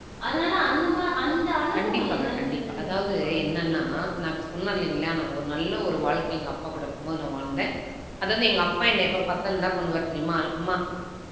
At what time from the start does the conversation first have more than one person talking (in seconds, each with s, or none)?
1.7 s